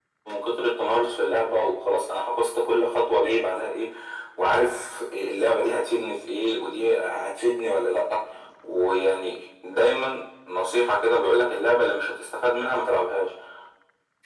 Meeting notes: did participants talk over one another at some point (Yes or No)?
No